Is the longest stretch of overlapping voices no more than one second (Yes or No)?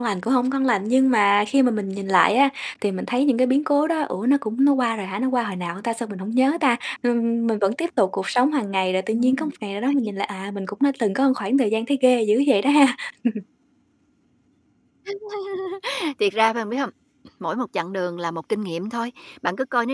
Yes